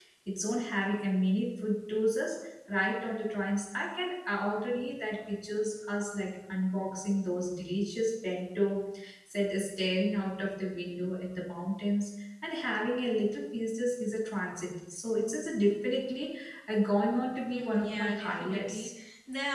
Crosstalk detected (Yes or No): Yes